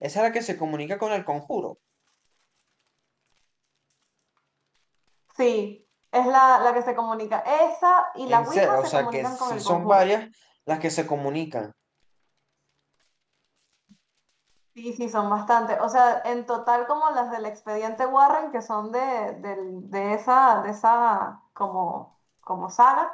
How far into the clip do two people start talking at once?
8.3 s

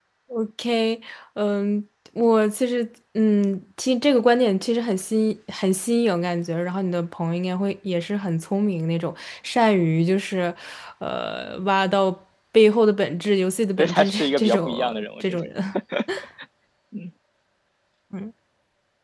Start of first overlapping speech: 13.8 s

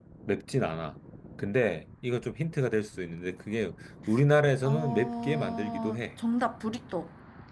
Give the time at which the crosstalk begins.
4.6 s

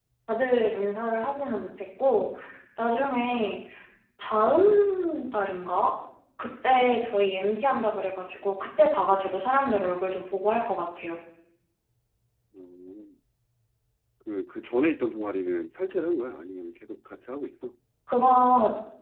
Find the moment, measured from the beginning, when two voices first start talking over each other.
none

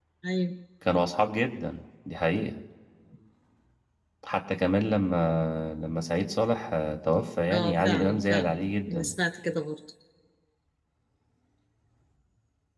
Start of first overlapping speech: 7.5 s

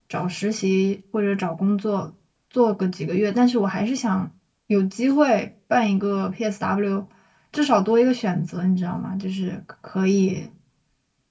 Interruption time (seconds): none

